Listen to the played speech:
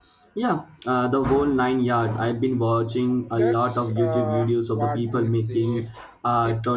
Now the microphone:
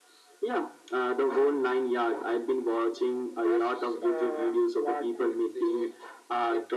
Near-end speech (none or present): none